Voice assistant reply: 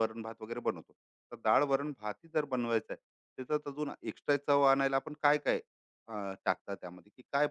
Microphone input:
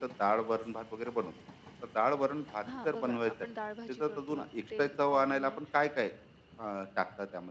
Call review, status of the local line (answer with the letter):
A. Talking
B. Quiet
A